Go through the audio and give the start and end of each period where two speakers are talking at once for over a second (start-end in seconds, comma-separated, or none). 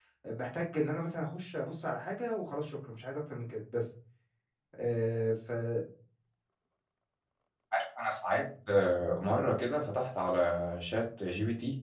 none